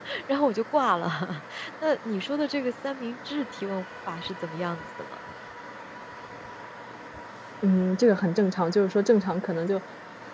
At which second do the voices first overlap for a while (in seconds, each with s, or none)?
none